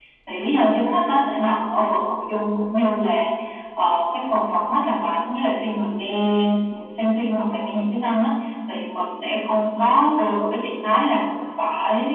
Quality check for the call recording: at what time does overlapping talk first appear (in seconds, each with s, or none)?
none